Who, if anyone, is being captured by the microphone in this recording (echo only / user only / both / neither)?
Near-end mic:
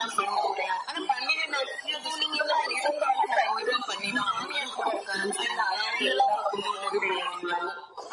echo only